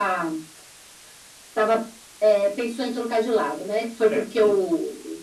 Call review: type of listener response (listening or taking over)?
listening